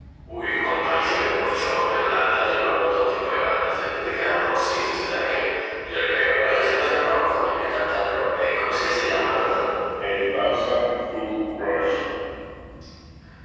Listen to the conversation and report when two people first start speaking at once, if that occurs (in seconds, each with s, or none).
none